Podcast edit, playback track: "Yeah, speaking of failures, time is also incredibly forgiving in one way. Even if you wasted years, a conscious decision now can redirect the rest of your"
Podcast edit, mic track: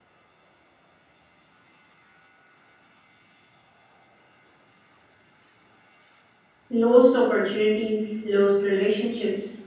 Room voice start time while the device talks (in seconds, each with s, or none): 6.7 s